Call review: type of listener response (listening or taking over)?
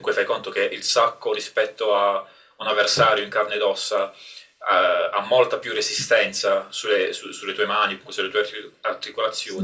listening